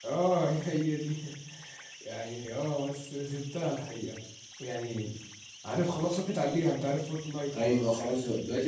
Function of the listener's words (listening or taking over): taking over